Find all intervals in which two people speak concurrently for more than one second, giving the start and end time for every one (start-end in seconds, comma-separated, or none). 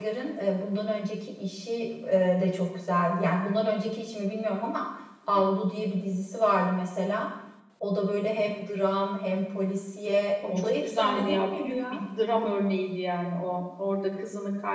10.4-12.0